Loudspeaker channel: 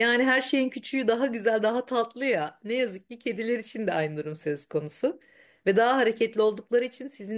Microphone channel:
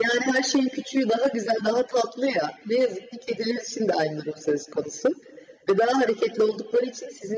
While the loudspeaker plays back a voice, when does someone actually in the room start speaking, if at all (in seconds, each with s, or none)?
none